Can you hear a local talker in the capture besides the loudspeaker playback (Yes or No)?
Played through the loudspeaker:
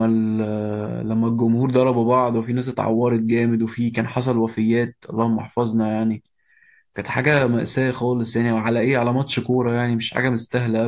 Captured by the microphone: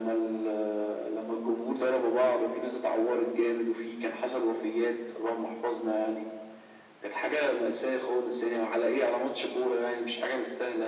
No